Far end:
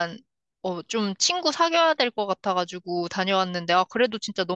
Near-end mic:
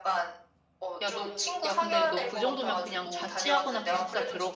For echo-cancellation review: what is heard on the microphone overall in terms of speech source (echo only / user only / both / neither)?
both